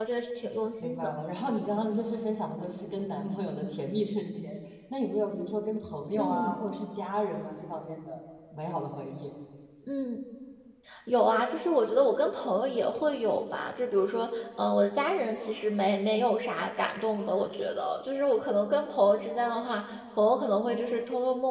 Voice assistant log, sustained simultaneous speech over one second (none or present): none